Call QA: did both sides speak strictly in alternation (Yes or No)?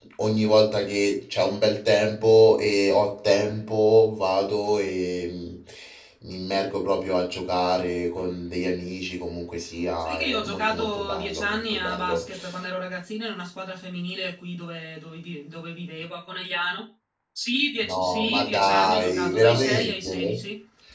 No